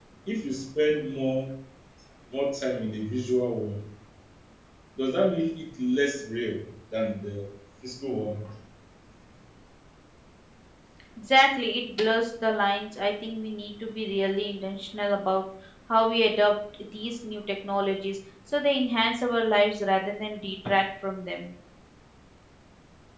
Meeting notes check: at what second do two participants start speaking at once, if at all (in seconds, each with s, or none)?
none